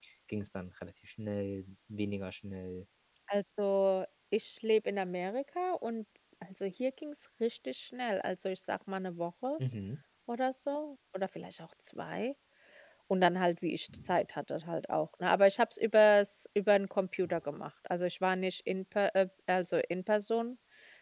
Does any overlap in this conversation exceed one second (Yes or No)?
No